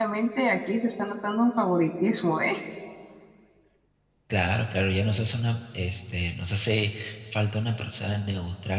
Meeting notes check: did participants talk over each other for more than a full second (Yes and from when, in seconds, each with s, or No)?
No